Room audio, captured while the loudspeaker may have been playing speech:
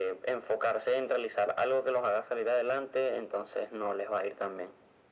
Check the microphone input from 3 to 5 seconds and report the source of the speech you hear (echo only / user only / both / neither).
echo only